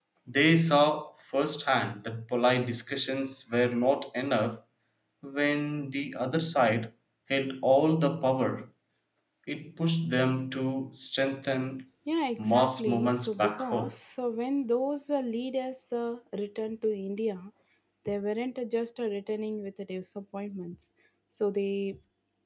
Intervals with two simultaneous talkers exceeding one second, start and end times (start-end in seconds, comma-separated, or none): 12.4-13.9